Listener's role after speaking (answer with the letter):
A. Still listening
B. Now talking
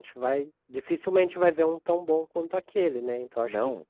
A